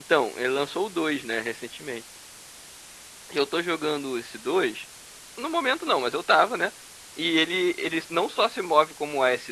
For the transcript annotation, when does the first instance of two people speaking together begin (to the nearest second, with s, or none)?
none